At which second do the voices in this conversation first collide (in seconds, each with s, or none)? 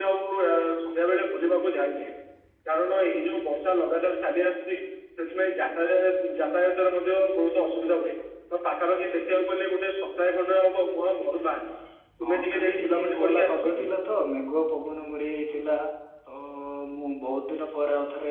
12.2 s